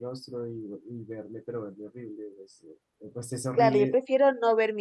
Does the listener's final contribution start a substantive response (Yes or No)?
Yes